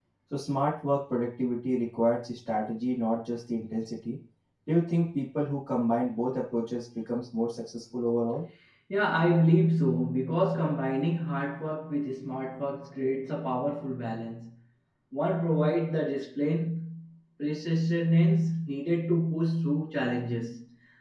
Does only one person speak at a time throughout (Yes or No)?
Yes